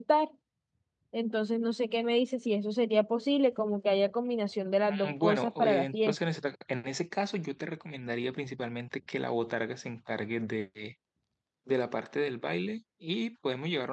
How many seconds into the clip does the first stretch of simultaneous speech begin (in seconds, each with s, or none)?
4.9 s